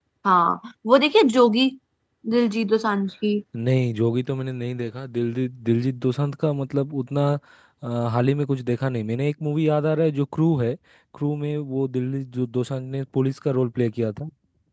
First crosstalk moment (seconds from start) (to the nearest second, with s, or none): none